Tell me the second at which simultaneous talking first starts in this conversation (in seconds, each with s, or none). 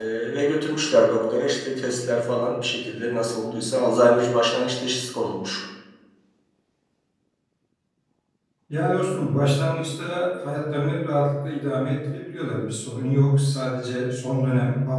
none